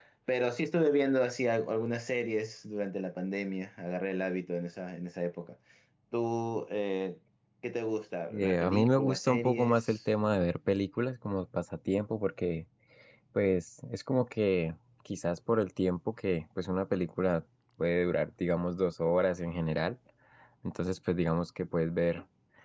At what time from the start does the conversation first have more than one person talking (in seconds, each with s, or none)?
8.3 s